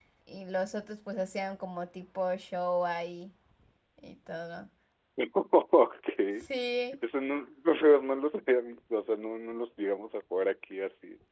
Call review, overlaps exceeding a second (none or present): none